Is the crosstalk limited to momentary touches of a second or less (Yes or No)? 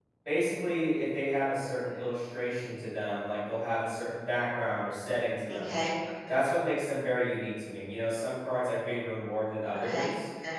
Yes